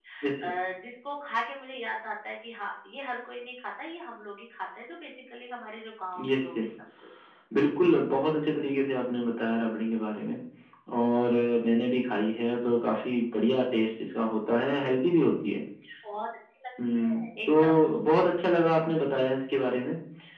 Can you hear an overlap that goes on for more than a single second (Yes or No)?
Yes